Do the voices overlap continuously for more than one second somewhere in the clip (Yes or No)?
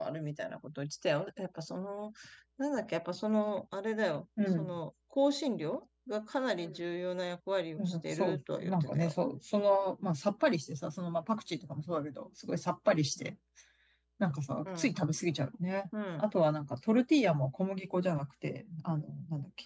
Yes